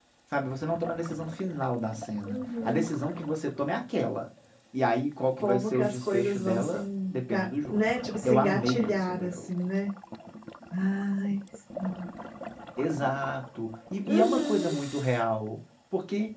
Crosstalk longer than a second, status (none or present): present